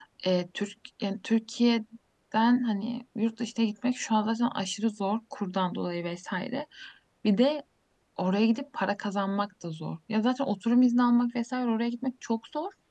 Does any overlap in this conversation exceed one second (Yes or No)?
No